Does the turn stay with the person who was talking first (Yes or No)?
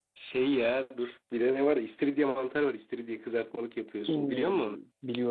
No